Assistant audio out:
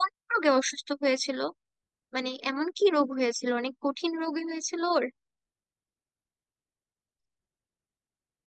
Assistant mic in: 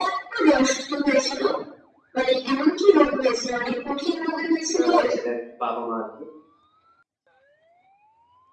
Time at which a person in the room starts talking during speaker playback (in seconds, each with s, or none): 4.8 s